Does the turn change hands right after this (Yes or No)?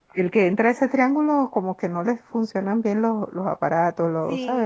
No